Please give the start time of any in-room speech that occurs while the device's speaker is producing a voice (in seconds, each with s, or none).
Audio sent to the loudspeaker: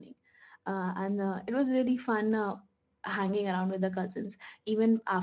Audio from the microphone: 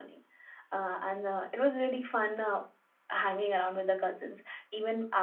none